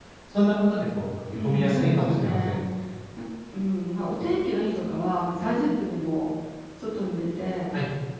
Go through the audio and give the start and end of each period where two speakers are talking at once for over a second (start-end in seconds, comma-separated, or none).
1.4-2.6